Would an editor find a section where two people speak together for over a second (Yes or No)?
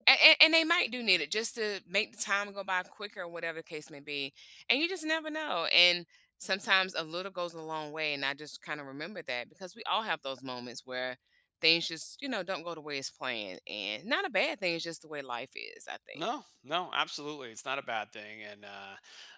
No